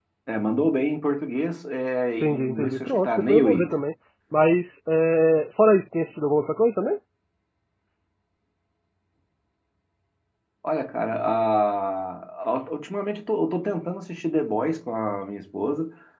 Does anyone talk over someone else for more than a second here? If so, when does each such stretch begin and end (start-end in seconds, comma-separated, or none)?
2.2-3.8